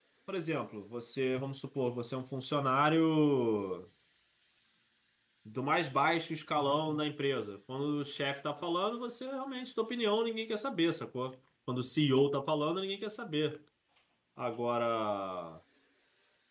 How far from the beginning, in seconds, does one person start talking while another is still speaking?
none

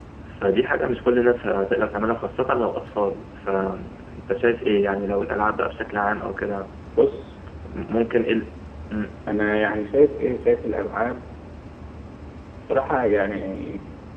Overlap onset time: none

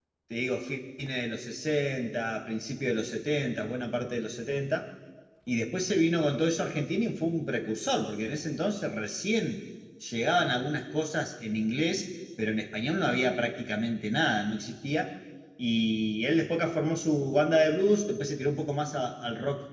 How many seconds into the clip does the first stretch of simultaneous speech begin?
none

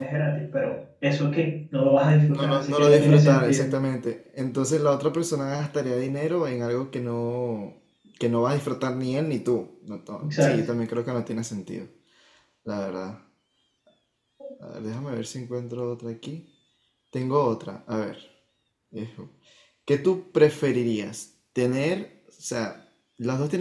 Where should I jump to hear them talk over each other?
2 s

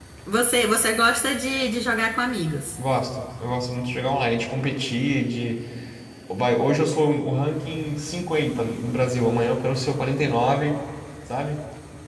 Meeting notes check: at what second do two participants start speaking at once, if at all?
none

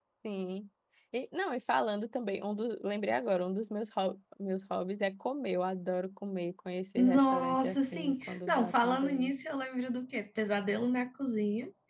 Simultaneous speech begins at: 7 s

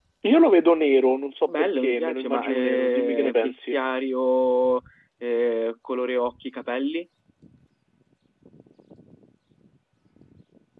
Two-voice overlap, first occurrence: 1 s

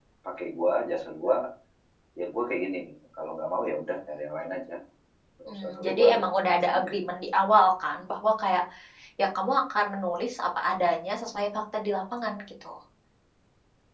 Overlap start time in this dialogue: 5 s

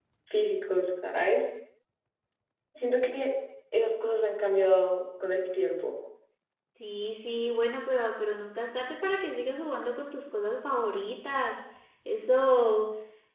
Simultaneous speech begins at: none

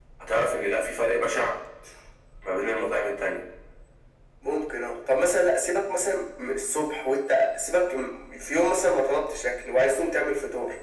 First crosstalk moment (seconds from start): none

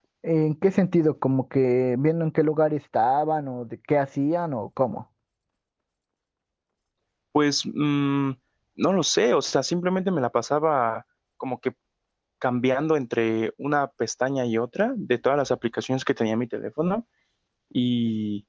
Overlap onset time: none

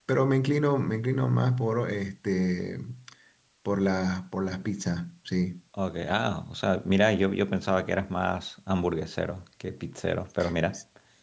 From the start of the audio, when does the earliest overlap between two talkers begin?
none

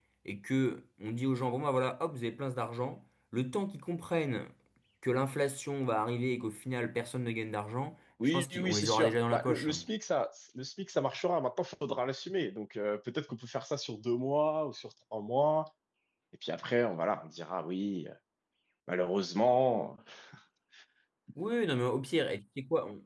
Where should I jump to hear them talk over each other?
8 s

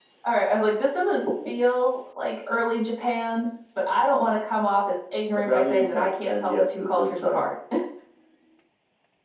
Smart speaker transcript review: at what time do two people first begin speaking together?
5 s

